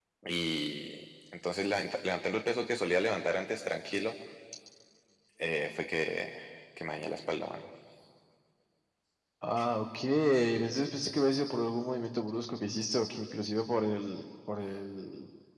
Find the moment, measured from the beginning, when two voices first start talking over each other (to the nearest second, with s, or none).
none